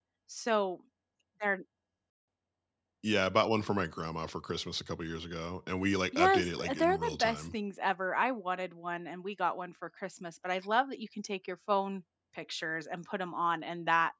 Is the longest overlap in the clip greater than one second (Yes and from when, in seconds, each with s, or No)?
Yes, from 6.1 s